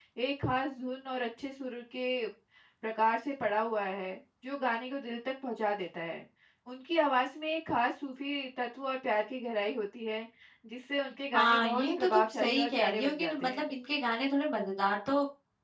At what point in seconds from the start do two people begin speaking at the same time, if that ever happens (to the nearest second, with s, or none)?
11 s